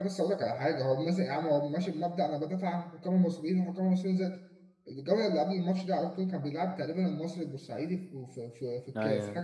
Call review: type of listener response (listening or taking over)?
listening